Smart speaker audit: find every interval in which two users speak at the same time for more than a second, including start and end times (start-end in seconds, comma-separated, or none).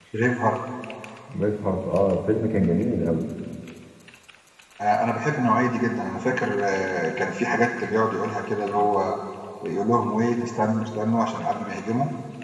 none